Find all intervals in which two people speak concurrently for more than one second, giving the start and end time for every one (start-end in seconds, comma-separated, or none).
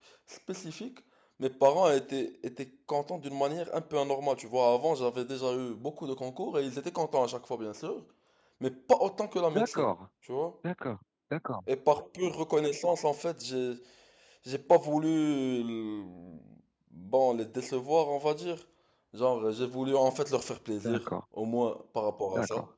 none